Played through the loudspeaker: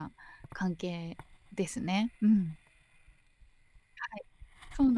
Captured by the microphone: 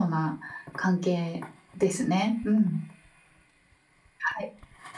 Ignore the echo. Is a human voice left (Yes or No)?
No